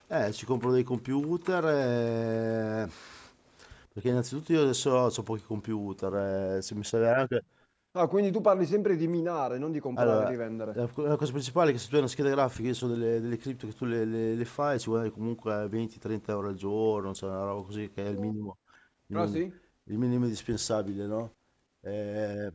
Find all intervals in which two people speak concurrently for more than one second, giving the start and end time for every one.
none

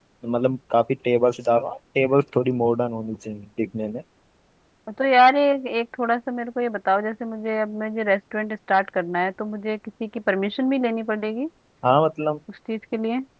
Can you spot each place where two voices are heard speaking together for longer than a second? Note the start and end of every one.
none

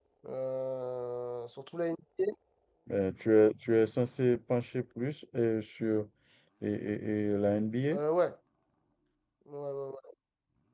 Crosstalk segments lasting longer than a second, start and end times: none

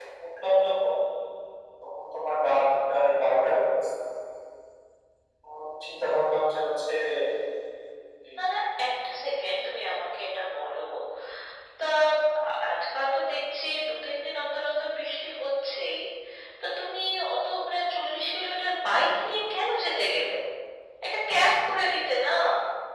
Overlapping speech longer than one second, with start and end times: none

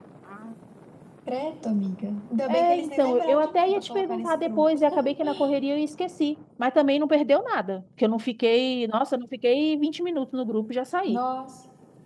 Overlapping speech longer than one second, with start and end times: 2.5-4.8

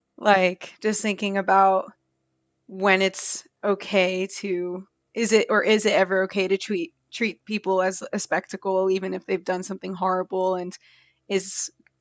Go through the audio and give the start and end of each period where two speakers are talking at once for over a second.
none

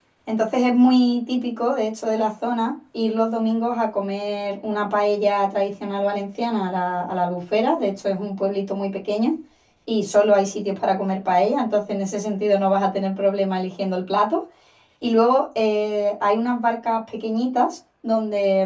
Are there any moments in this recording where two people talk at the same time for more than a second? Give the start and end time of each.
none

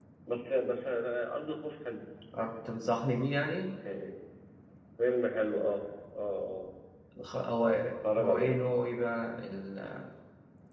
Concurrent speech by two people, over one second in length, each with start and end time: none

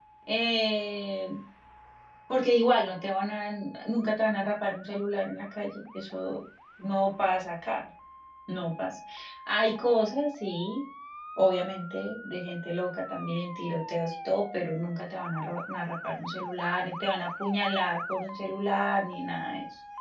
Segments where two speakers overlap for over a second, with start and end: none

